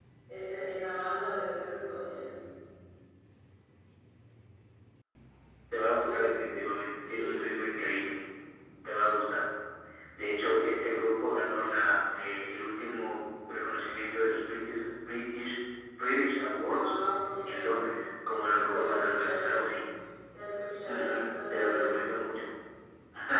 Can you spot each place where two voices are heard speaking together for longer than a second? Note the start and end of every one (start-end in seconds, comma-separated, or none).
18.3-19.6, 20.9-22.1